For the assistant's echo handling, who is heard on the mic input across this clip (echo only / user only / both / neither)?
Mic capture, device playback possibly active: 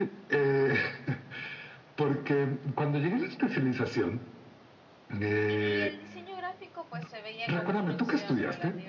both